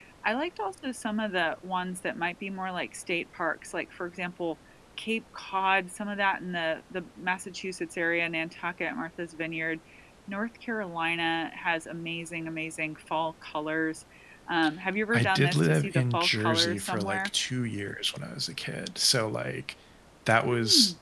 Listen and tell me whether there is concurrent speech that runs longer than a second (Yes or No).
Yes